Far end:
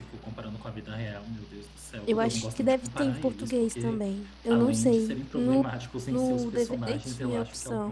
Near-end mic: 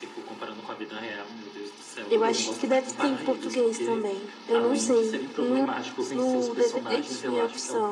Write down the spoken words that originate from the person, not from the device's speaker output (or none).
none